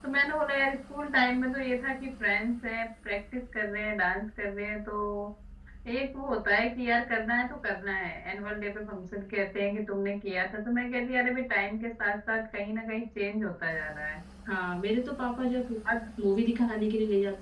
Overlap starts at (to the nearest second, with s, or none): none